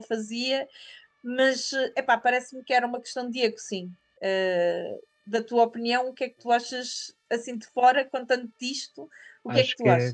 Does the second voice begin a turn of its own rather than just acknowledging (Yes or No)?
Yes